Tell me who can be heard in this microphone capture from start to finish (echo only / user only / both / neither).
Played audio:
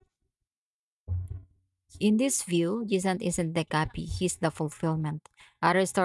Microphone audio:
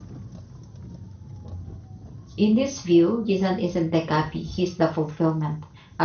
echo only